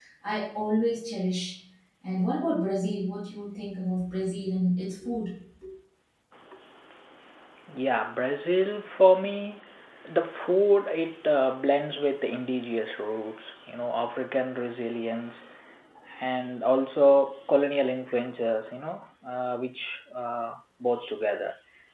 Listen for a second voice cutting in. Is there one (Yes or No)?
No